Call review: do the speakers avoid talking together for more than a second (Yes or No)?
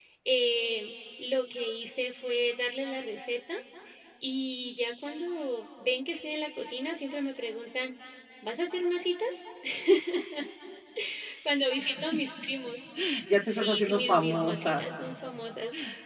No